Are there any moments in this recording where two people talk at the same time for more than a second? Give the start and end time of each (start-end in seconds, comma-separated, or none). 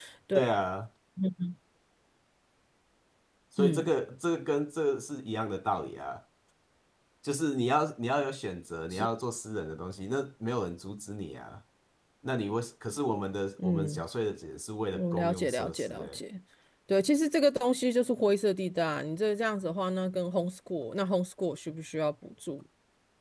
15.0-16.2